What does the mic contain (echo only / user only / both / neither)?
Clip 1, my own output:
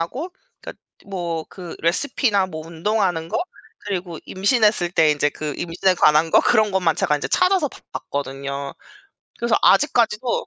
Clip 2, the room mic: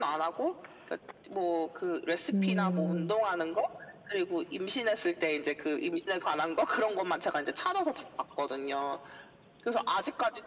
both